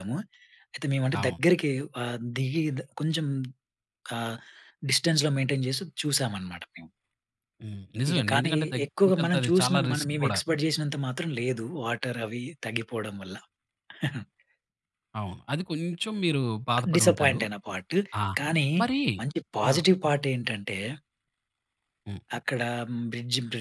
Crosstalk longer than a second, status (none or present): present